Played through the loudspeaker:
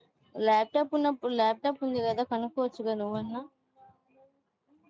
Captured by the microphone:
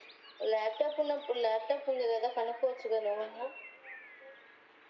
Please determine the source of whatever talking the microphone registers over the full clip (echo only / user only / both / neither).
echo only